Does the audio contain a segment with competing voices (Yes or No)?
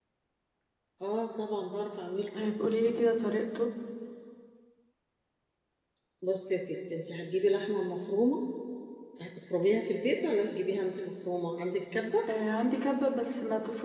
No